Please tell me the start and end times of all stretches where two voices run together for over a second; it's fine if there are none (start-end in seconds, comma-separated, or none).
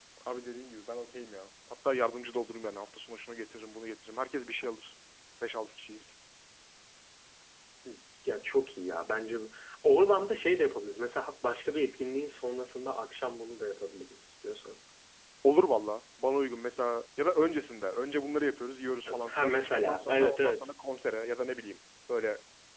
19.2-20.7